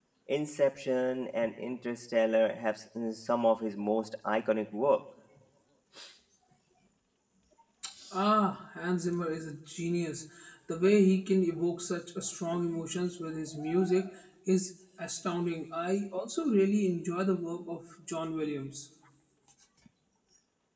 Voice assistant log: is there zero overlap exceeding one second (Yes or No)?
Yes